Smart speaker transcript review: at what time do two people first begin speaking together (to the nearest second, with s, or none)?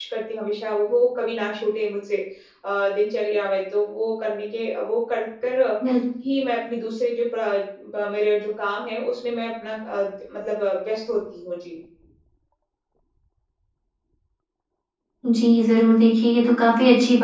none